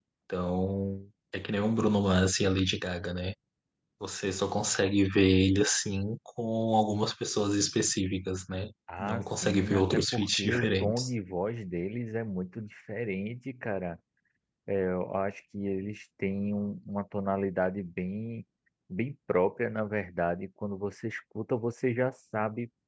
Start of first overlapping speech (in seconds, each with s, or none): 8.9 s